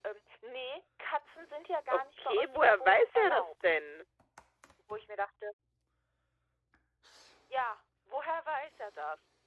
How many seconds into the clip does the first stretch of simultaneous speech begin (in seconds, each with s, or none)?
1.9 s